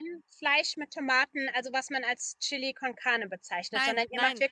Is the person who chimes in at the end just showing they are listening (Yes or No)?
Yes